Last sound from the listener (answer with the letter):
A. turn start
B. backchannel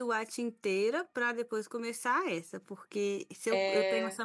B